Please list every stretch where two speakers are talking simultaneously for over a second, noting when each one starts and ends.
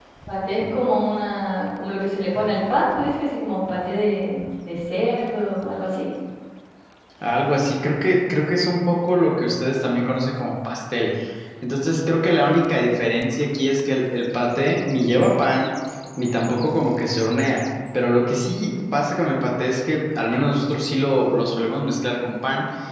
none

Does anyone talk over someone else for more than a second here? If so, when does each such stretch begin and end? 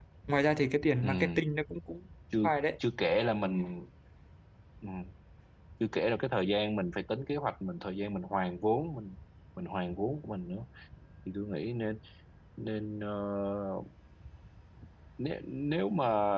none

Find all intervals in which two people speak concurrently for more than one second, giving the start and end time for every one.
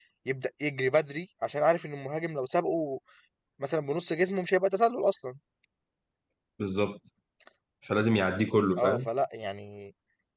none

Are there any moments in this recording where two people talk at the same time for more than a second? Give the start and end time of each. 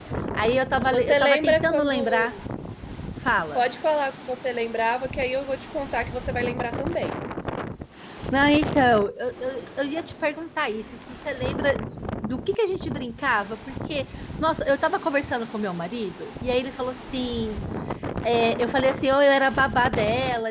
0.9-2.3

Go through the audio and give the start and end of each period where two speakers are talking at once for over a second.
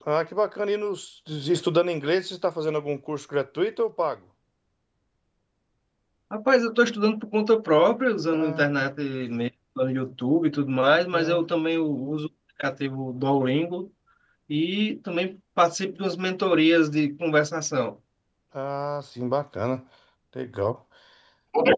none

